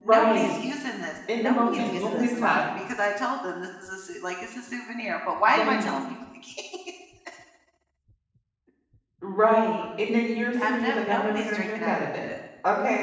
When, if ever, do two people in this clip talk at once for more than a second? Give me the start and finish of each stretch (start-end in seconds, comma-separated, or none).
1.4-2.7, 10.6-12.3